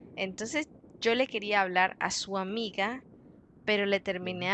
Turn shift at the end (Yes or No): No